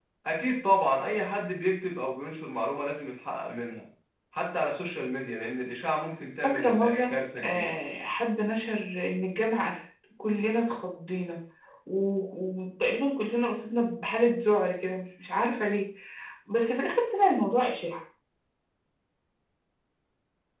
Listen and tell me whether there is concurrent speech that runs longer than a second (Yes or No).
Yes